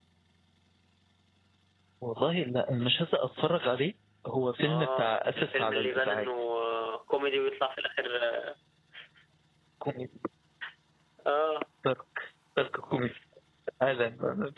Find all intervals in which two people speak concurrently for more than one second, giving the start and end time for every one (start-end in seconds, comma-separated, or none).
4.6-6.2